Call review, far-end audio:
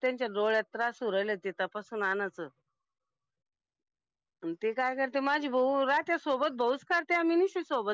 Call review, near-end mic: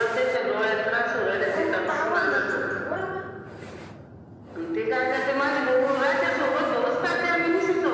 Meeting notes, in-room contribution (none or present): present